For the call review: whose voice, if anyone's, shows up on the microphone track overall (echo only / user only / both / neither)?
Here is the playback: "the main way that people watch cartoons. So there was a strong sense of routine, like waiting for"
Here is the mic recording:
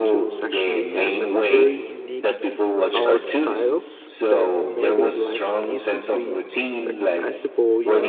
both